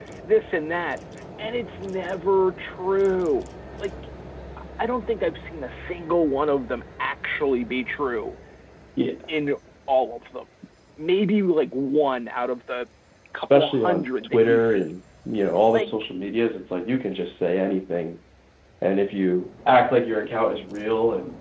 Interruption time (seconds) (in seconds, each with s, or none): 13.4 s